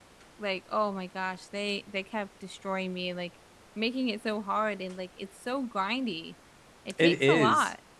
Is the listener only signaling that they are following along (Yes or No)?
No